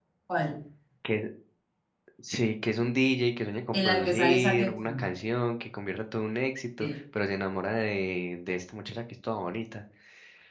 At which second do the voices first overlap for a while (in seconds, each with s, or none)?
3.7 s